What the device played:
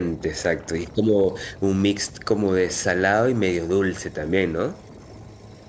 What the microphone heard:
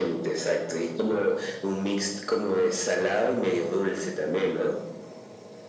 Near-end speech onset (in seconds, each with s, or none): none